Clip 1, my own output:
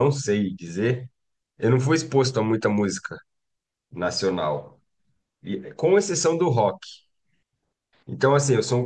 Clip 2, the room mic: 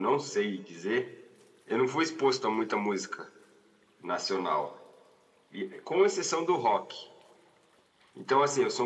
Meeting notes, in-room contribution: none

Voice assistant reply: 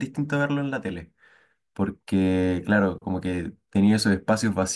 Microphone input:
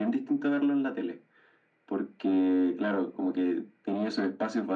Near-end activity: none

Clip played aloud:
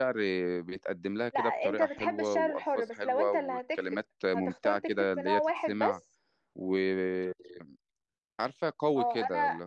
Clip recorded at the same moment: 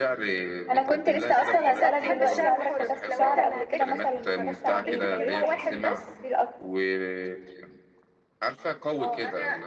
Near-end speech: present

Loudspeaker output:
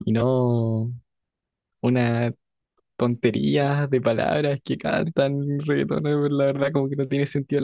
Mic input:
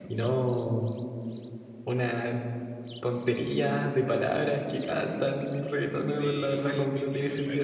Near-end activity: present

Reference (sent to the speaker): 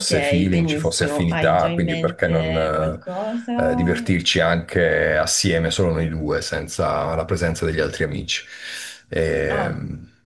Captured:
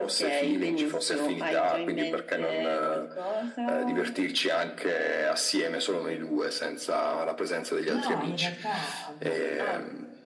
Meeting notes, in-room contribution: present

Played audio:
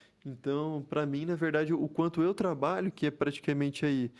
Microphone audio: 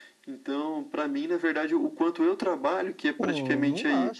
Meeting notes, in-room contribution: present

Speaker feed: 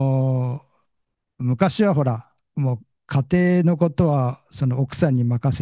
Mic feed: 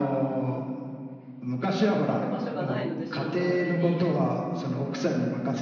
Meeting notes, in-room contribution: present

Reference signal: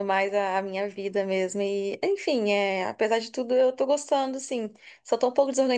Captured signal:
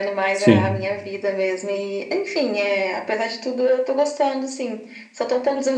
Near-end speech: present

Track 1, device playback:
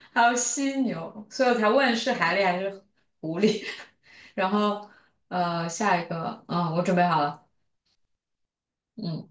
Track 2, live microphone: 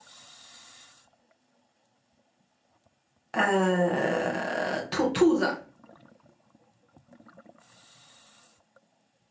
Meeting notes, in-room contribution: present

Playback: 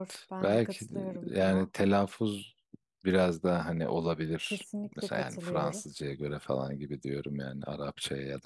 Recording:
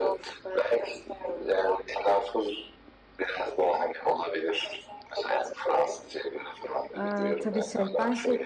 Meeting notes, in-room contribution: present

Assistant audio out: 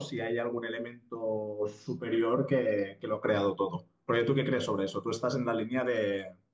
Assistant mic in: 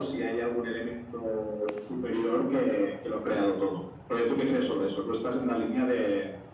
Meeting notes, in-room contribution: none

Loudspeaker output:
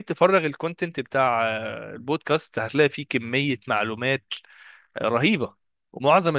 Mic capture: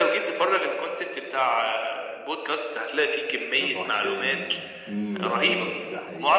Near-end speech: present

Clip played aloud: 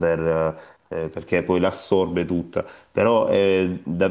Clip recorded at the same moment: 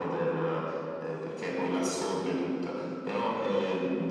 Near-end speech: none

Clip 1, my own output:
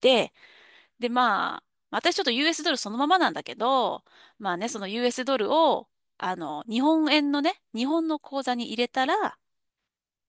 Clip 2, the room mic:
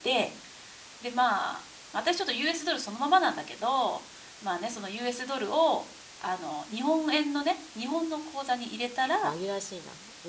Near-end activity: present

